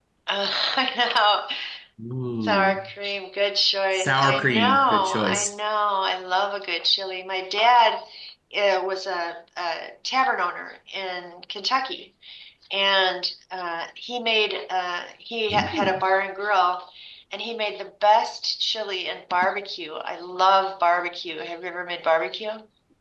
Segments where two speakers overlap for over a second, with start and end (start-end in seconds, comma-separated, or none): 3.9-5.5